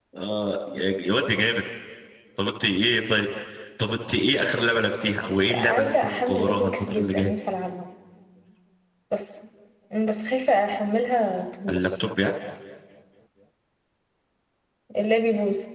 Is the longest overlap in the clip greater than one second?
Yes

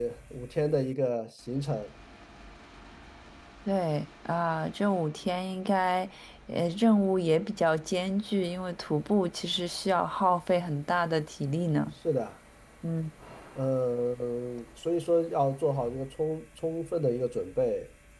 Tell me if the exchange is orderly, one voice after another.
Yes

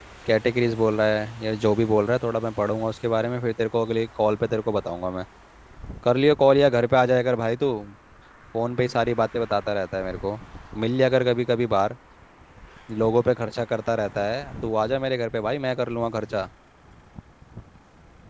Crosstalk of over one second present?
No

